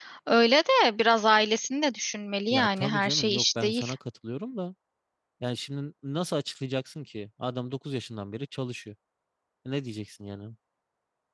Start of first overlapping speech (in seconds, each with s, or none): 2.5 s